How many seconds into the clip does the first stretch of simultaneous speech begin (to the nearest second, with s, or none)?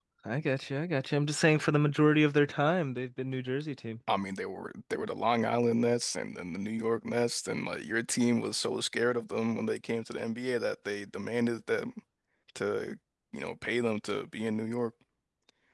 none